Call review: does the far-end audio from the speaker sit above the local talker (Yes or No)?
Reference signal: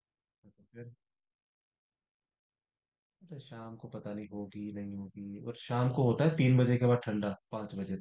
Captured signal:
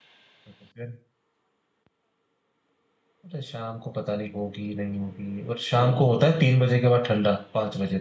Yes